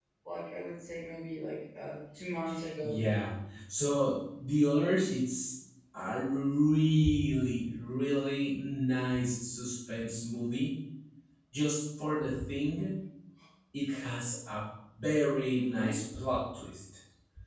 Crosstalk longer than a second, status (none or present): none